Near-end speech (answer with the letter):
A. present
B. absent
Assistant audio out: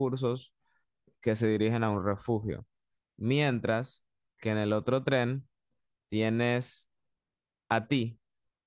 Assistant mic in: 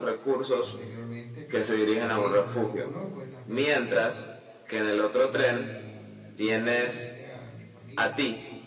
A